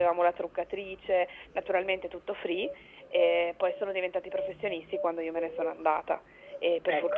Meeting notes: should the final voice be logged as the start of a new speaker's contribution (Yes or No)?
No